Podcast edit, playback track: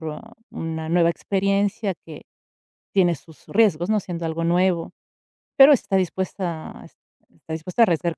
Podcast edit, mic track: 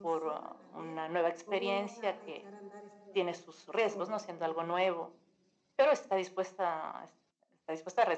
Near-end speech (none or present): present